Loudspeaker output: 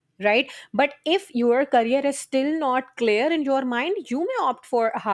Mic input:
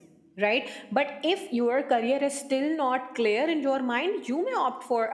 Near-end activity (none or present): none